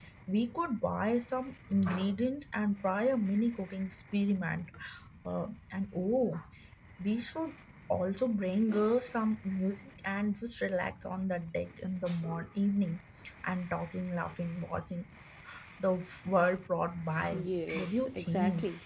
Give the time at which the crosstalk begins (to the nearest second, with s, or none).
17 s